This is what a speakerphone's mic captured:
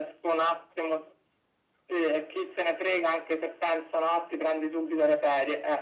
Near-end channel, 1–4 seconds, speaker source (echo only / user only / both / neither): echo only